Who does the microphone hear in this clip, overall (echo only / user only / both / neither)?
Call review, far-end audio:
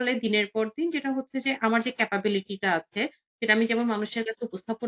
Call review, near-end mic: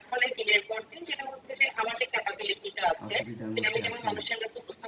both